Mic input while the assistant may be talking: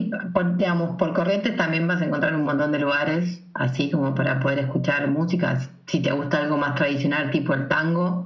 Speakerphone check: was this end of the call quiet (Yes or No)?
Yes